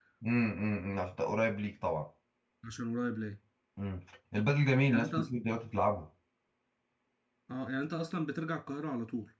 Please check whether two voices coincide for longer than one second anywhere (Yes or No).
No